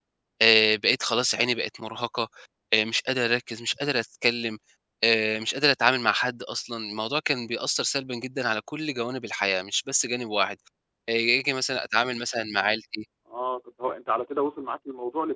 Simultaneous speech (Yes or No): No